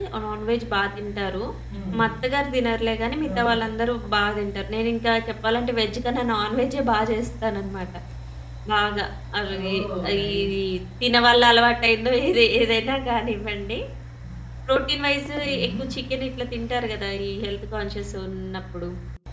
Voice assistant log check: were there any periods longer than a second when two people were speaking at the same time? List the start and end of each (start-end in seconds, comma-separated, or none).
none